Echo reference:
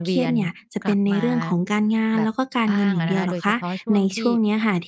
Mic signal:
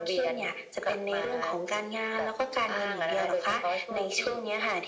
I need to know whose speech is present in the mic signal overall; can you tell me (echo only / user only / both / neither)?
echo only